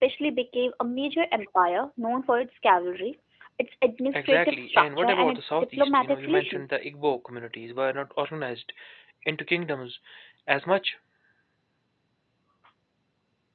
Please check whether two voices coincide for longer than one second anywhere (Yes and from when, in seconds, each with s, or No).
Yes, from 4.1 s